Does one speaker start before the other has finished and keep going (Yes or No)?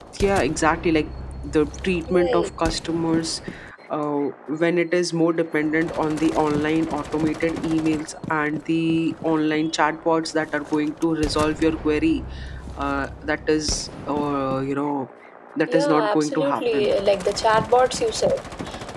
Yes